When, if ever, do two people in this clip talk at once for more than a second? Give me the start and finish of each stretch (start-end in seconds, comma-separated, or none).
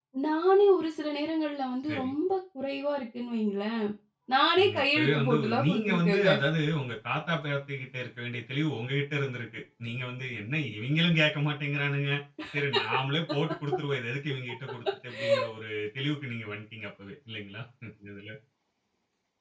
4.6-6.3